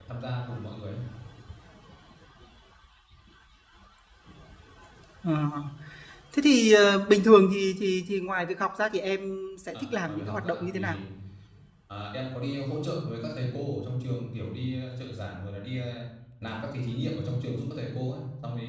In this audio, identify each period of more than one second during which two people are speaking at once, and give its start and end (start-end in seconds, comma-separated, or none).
9.7-11.0